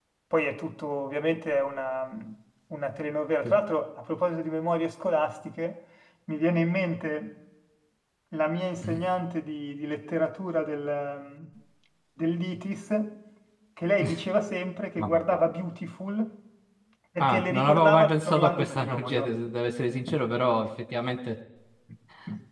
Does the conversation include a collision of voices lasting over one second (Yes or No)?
Yes